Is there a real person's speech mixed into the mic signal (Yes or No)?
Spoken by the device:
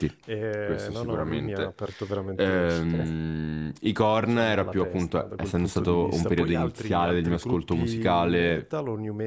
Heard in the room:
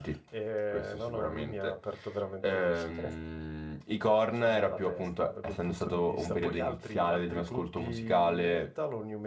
No